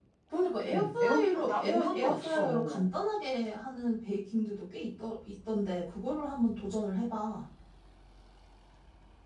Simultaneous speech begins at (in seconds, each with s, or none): 0.7 s